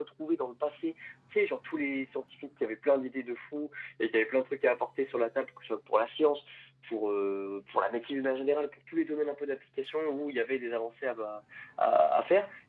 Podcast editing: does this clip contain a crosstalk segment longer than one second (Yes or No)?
No